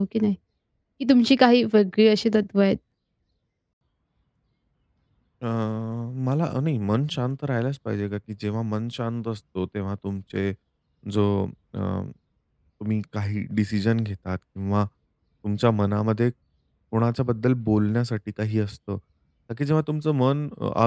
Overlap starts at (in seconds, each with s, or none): none